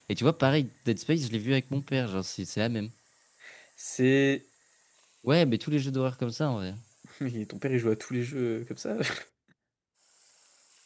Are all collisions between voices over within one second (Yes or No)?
Yes